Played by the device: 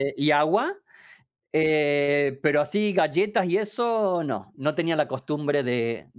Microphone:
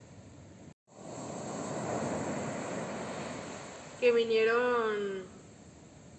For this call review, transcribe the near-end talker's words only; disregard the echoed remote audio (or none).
que vinieron,